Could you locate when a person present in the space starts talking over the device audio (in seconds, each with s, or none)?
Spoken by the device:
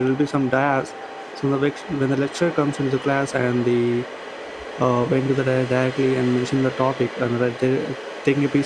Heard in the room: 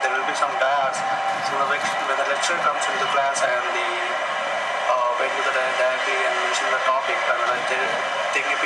none